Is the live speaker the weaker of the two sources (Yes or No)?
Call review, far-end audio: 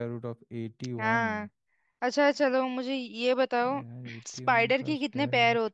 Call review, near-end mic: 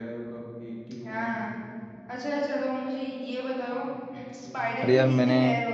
No